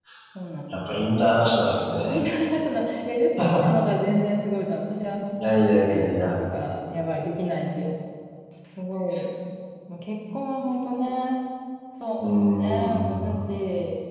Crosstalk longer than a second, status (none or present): present